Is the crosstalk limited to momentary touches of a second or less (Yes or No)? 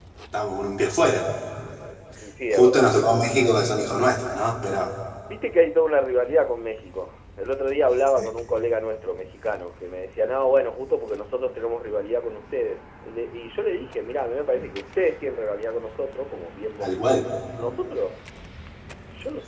Yes